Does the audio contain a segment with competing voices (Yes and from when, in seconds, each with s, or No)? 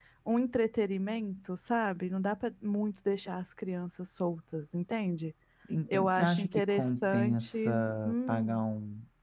Yes, from 5.9 s